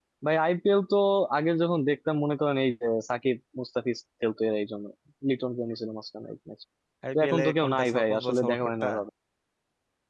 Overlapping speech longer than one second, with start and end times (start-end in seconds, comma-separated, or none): 7.2-8.9